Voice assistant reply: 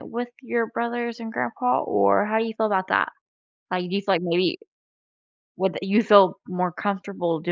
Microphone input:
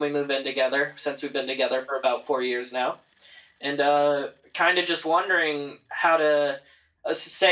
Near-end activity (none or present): present